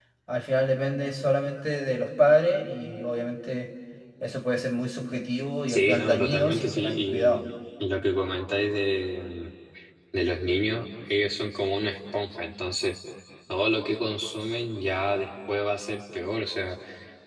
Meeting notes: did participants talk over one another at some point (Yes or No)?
Yes